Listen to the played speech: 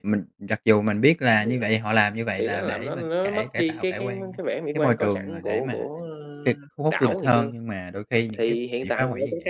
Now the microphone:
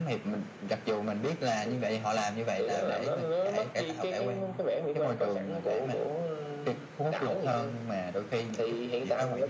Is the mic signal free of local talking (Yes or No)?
Yes